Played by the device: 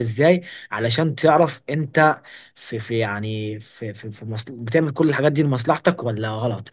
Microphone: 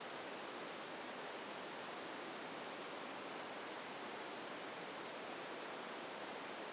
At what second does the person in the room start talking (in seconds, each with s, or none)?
none